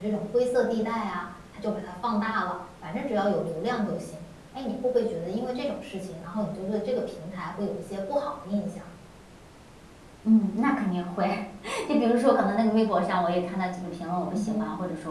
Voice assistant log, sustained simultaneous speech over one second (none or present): none